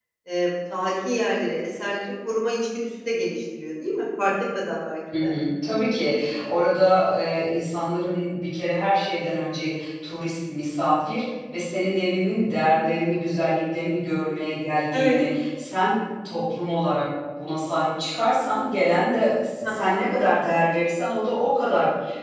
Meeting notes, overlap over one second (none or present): none